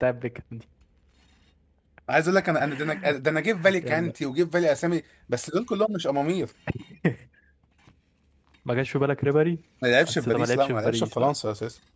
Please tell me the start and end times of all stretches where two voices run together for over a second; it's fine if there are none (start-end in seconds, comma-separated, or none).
10.1-11.3